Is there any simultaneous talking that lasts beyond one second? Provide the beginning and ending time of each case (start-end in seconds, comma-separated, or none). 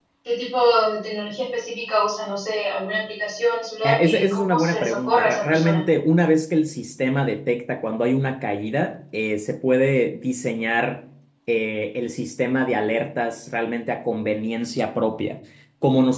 3.8-5.8